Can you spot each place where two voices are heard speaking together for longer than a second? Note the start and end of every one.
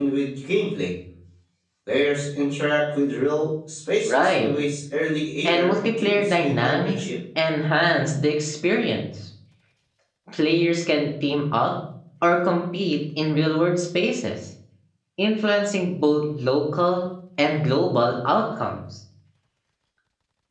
5.5-7.0

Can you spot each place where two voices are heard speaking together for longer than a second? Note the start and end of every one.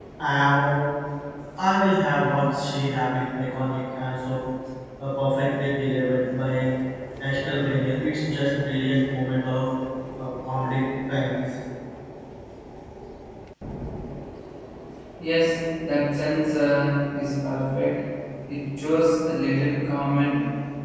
none

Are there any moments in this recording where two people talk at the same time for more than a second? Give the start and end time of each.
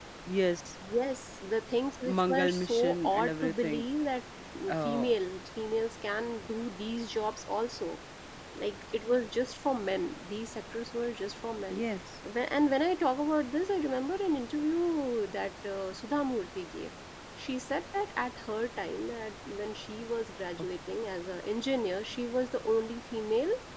2.0-3.9

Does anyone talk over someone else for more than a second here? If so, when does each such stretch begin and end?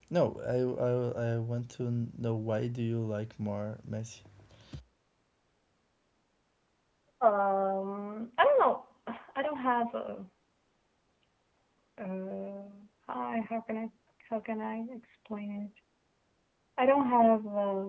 none

